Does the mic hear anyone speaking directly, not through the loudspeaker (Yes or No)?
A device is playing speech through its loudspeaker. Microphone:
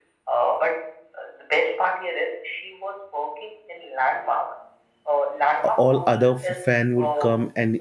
Yes